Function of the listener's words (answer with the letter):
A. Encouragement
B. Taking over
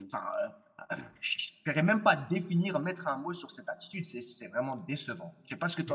B